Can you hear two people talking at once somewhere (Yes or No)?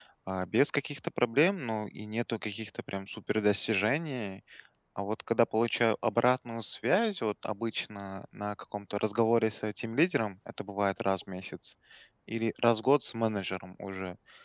No